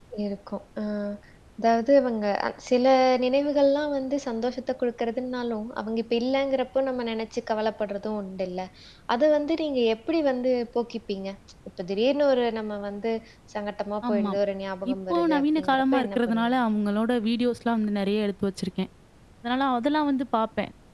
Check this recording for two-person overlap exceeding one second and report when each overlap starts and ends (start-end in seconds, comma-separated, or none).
14.9-16.5